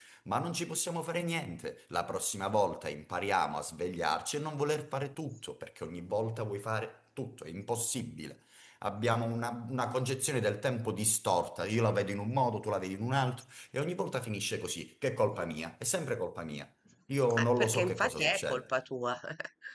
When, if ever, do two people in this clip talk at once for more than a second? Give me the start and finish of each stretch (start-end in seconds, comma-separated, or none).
17.4-18.6